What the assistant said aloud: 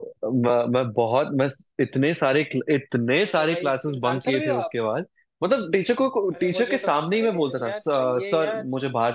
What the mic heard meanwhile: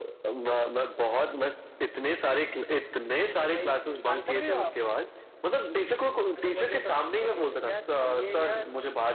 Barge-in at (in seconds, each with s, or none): none